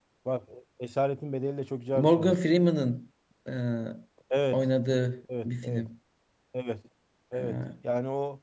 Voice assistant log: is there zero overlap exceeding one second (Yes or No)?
Yes